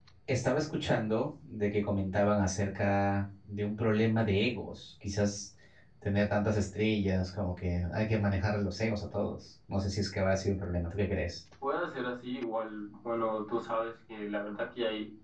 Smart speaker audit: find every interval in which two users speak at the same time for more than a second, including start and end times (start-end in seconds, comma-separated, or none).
none